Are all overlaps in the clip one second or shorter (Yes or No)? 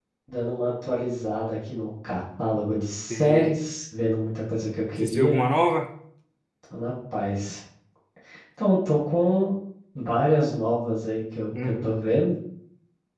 Yes